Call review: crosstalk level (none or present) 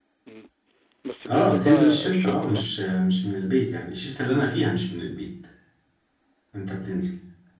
present